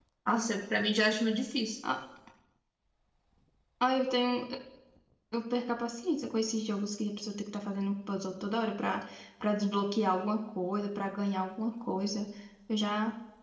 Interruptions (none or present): none